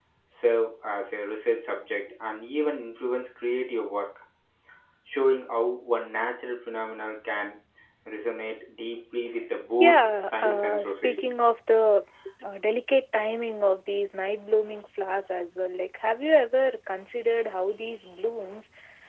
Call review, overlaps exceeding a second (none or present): present